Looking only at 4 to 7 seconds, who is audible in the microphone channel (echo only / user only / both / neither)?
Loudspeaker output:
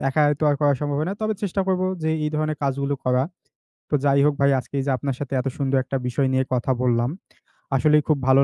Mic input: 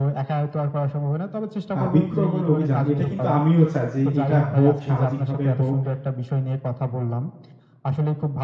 both